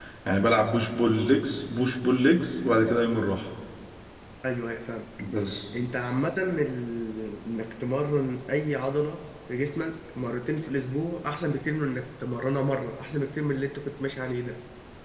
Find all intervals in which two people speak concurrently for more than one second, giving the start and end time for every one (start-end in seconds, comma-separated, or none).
none